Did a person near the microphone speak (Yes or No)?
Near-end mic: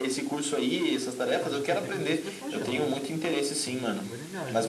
Yes